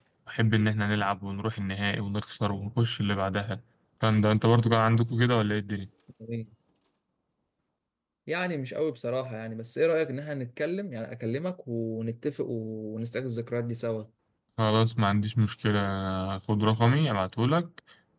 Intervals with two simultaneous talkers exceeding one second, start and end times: none

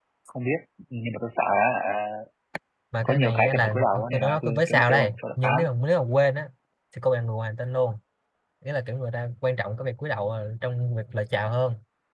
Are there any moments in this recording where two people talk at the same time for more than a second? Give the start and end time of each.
3.0-5.7

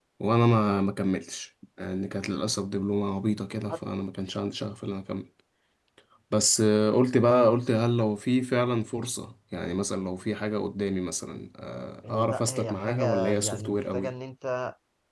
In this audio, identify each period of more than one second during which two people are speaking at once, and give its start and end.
12.1-14.1

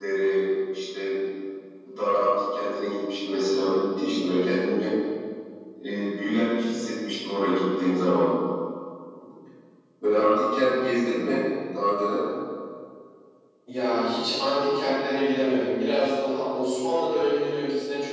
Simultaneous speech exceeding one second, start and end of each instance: none

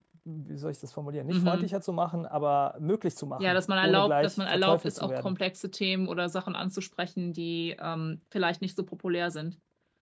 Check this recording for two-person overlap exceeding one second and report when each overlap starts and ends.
3.4-5.3

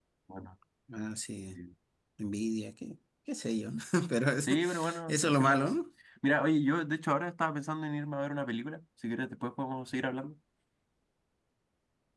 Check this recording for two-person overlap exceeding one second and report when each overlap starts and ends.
4.4-5.7

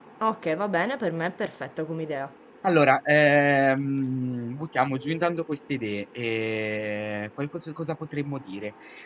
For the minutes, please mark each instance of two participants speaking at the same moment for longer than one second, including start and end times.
none

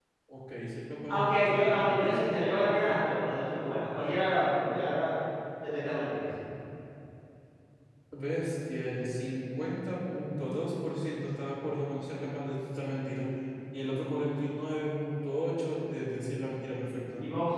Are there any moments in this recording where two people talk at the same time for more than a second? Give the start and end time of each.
1.1-2.3

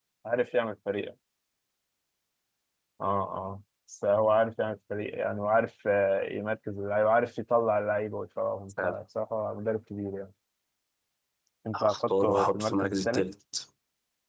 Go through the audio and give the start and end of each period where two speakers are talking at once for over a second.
11.7-13.2

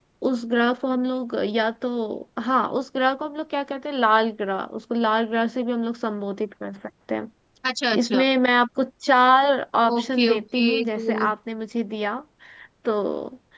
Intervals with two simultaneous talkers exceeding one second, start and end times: 10.0-11.3

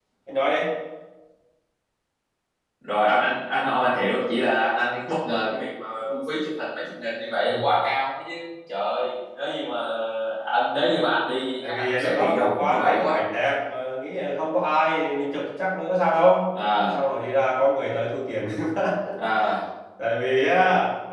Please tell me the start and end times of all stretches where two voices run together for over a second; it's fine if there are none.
11.7-13.2

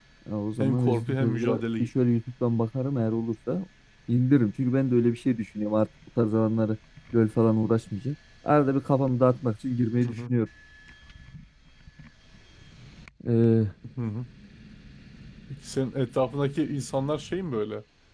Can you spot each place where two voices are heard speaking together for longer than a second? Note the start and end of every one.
0.6-1.9

